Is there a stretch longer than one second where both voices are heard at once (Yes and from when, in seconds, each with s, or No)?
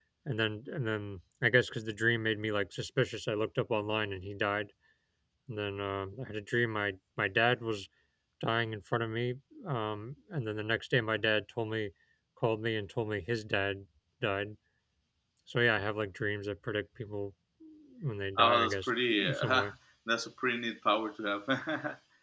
Yes, from 18.4 s